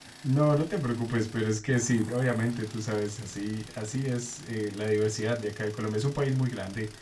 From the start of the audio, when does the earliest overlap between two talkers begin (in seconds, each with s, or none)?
none